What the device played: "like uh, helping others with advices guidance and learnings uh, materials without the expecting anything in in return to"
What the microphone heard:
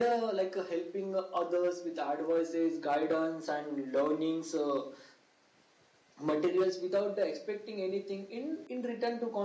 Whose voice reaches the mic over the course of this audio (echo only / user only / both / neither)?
echo only